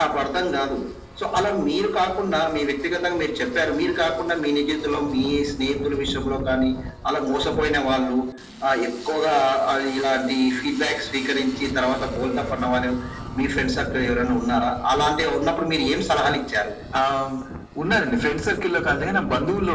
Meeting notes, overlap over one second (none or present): none